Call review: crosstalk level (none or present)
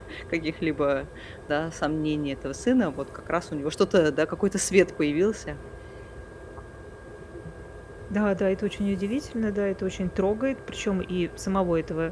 none